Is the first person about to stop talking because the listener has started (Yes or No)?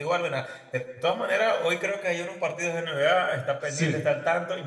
No